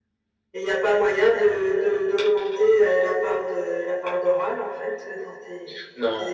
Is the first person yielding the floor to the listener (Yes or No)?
Yes